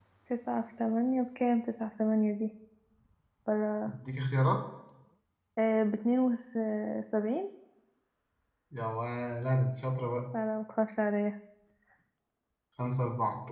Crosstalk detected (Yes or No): No